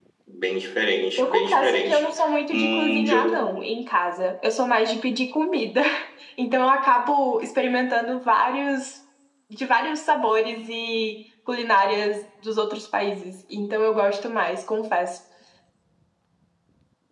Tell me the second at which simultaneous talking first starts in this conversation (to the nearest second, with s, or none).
1 s